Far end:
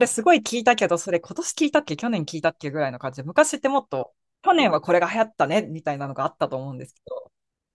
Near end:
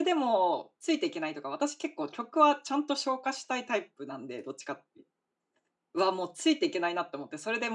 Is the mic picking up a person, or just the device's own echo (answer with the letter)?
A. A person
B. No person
A